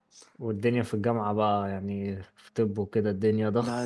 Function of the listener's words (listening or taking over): taking over